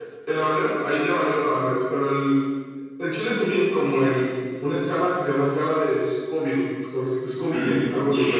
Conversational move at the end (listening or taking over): taking over